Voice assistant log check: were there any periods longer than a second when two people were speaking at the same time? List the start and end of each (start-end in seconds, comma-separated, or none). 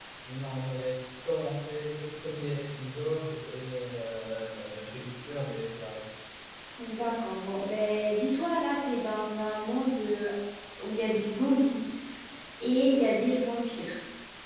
none